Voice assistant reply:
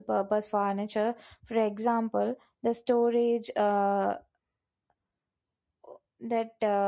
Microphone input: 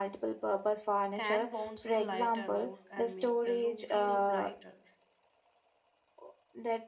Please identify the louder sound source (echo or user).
echo